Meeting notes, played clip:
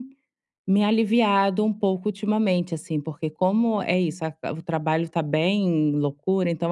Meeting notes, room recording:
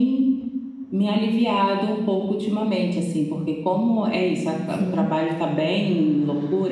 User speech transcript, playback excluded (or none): Sim.